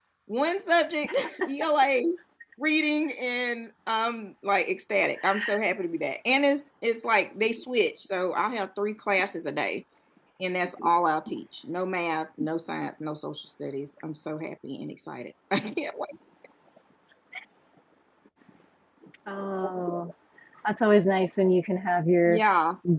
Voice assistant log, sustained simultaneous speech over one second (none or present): none